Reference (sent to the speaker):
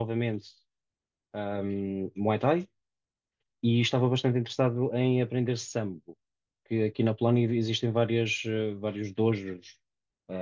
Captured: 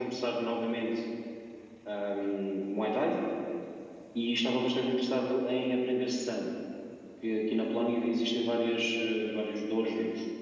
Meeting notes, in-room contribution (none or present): none